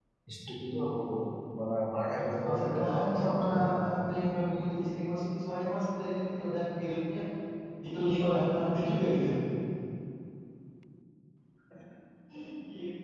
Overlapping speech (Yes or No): Yes